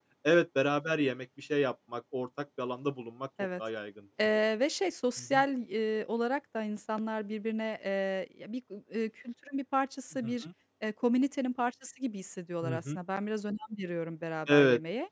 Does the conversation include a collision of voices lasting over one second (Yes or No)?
No